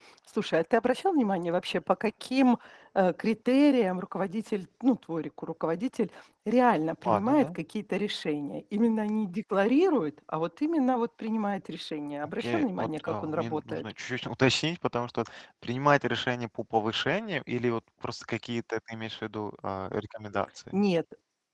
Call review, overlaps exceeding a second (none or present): present